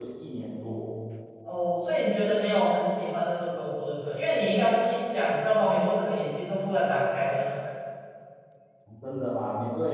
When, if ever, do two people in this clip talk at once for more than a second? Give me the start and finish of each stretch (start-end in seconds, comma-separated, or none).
none